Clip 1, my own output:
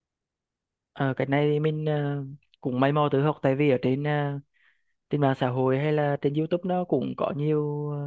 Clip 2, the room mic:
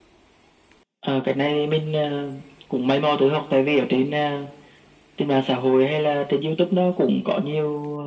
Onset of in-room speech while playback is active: none

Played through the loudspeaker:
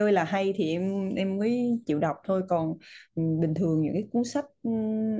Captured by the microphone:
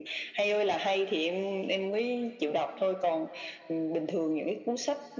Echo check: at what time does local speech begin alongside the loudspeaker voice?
none

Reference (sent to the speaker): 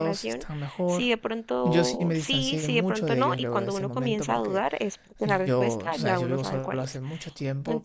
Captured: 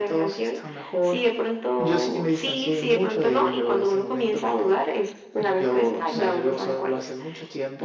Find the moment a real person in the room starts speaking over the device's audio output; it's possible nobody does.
none

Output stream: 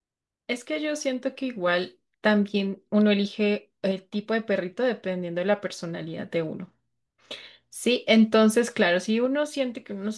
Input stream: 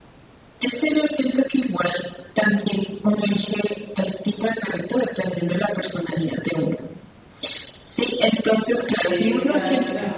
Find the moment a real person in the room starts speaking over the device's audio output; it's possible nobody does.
9.0 s

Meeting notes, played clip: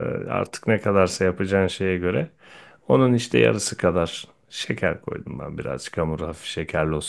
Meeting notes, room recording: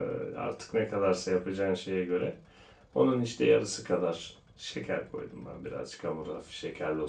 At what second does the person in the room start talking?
none

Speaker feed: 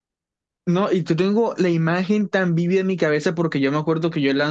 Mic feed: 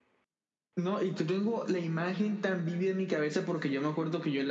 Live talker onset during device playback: none

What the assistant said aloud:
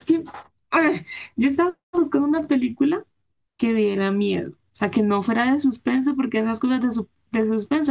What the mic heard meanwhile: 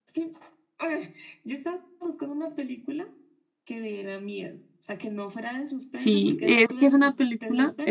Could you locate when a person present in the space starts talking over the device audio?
5.9 s

